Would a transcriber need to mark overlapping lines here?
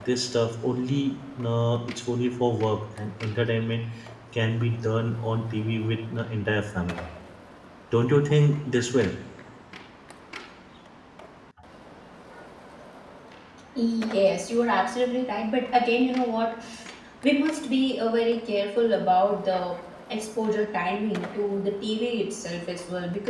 No

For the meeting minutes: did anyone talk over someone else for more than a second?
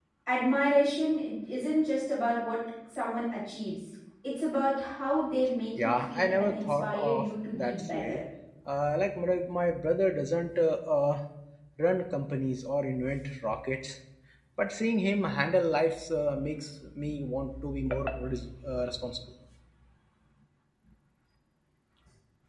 Yes, from 5.8 s

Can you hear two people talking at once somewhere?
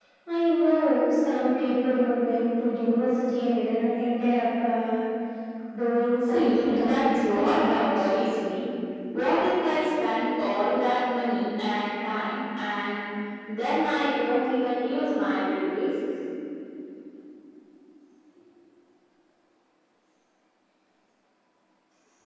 Yes, from 6.3 s

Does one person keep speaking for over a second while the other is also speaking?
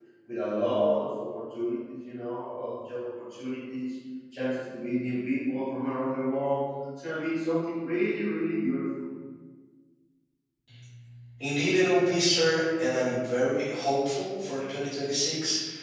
No

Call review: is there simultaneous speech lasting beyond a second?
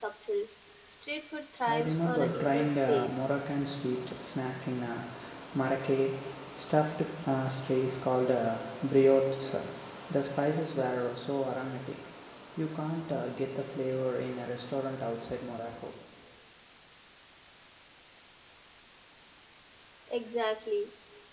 Yes, from 1.7 s

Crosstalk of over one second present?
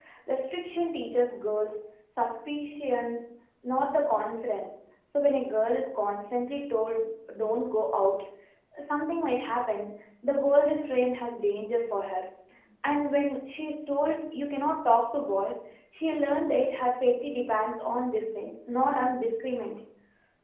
No

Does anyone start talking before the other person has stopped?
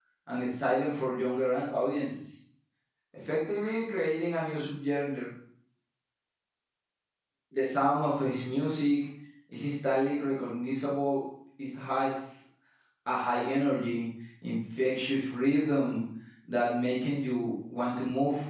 No

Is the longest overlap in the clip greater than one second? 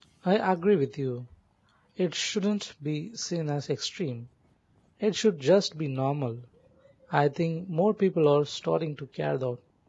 No

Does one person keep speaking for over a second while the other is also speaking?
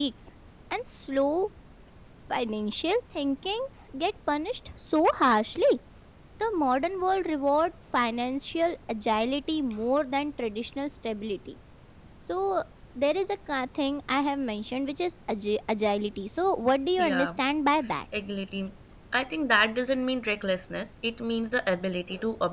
No

